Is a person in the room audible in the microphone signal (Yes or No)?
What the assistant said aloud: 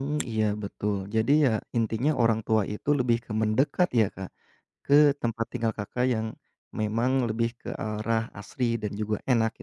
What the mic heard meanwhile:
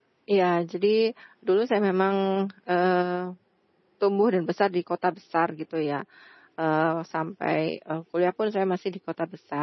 Yes